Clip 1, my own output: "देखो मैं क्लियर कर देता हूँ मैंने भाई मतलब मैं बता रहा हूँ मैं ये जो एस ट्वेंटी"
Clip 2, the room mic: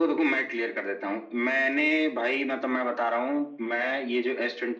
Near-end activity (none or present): none